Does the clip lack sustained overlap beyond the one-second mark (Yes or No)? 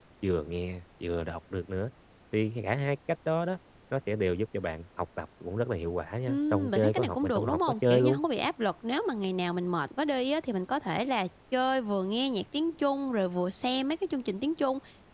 No